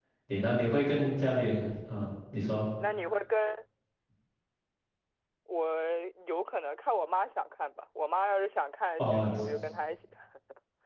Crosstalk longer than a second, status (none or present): none